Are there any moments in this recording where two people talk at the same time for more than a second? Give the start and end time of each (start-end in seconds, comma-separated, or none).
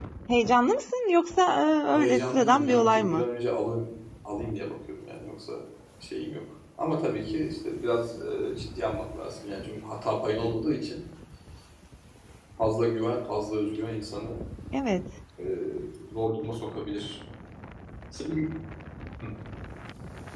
1.9-3.2